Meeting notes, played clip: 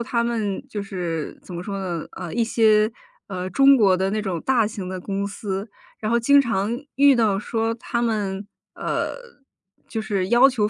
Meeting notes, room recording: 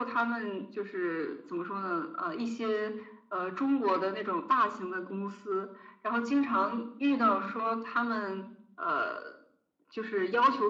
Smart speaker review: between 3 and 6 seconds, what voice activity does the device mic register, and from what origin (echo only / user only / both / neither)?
echo only